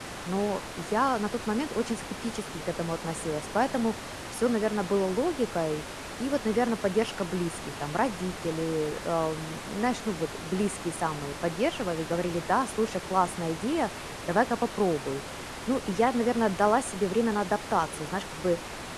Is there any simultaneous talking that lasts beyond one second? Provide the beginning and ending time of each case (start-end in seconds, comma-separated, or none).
none